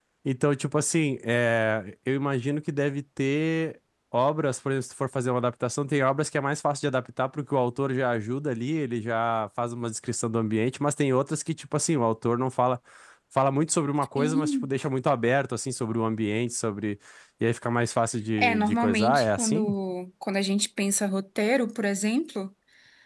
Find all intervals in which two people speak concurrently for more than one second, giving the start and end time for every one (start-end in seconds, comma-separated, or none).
18.4-19.7